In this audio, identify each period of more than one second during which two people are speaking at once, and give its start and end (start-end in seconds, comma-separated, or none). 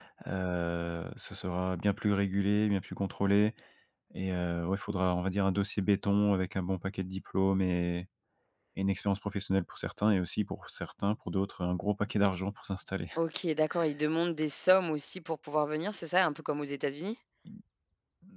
none